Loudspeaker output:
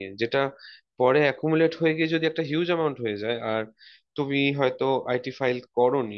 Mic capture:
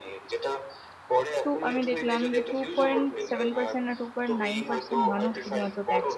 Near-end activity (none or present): present